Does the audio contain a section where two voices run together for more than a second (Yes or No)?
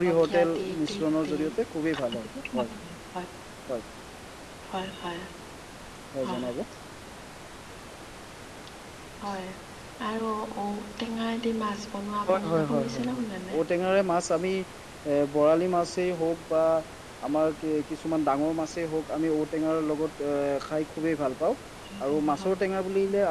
Yes